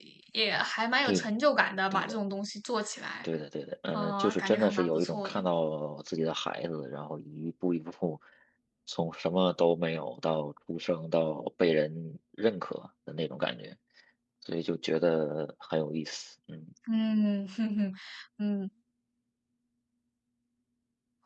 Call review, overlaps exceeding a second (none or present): present